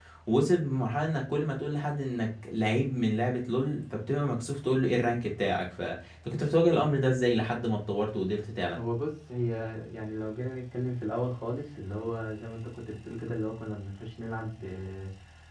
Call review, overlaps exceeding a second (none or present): none